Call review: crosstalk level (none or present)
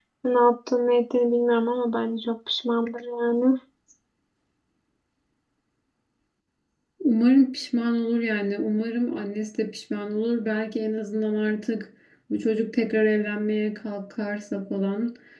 none